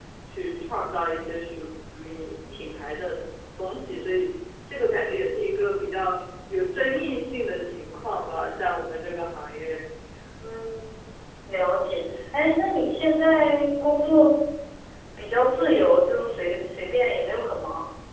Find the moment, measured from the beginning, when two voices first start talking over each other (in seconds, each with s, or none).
none